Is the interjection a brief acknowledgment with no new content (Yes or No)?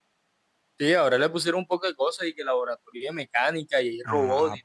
No